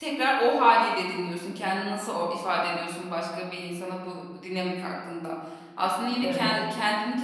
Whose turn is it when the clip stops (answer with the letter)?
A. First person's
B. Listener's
A